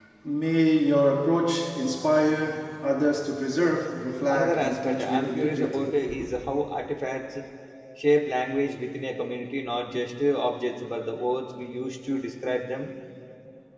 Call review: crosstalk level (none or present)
present